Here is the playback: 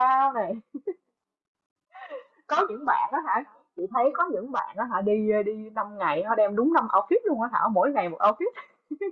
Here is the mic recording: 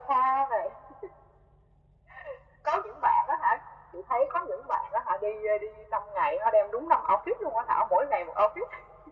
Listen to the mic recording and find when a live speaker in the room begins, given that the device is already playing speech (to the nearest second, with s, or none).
none